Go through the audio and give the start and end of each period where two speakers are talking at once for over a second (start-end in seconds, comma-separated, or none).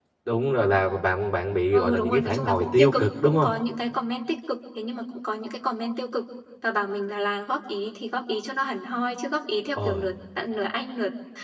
1.7-3.5